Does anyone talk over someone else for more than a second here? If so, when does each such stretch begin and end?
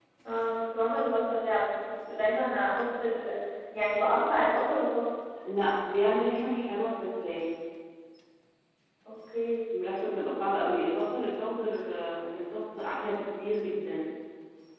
none

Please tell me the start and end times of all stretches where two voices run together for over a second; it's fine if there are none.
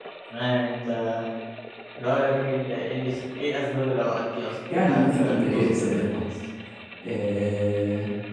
4.7-6.2

